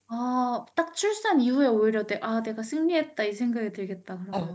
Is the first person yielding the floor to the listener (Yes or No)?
Yes